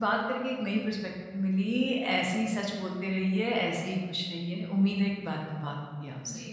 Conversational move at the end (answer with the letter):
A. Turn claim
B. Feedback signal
A